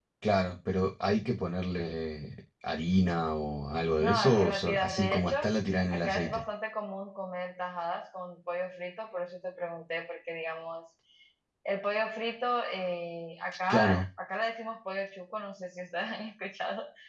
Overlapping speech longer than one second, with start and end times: 4.0-5.3

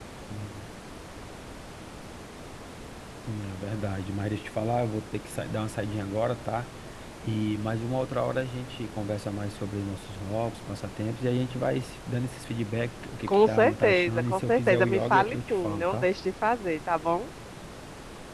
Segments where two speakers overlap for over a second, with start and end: 13.3-16.1

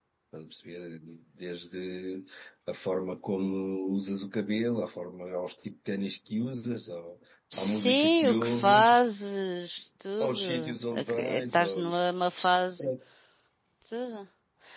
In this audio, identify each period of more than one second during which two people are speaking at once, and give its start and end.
7.6-9.0, 10.2-12.2

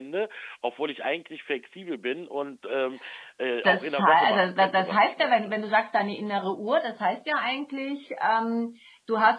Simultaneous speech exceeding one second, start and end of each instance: 3.6-5.5

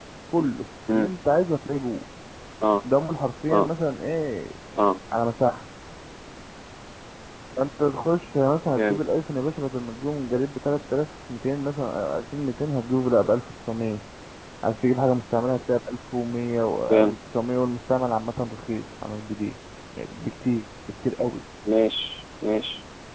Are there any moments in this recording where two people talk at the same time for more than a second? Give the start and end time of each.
none

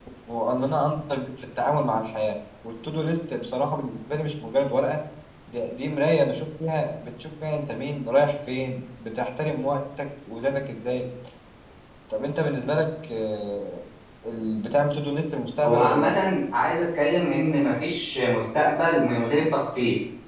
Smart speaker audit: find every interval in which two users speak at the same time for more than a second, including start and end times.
none

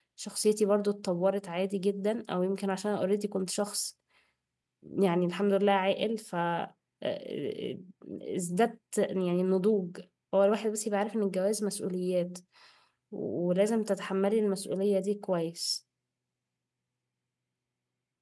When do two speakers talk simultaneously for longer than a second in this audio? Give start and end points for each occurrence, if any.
none

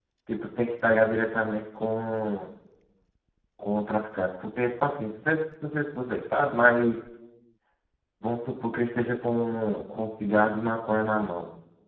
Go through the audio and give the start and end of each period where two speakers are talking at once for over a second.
none

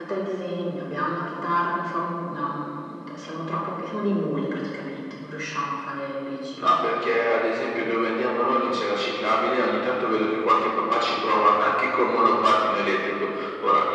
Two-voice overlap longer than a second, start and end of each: none

